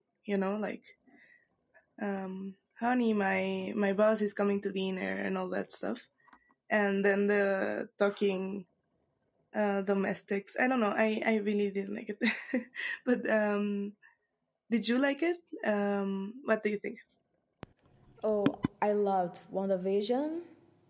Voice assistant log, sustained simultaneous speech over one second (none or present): none